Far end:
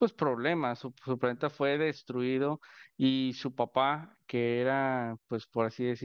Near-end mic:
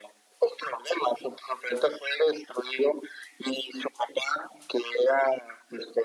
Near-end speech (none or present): none